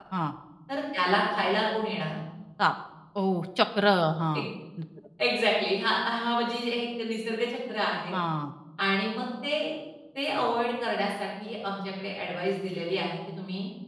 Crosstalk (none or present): none